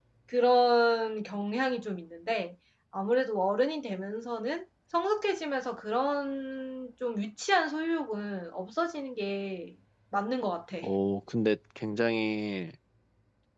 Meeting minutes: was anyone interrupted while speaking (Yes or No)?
No